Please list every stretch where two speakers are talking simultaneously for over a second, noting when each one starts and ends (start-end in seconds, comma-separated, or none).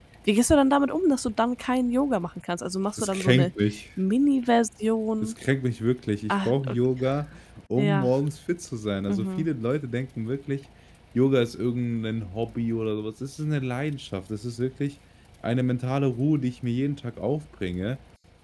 none